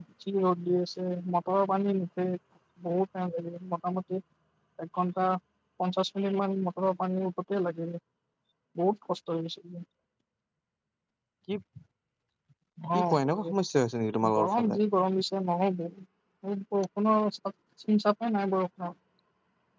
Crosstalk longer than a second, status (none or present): none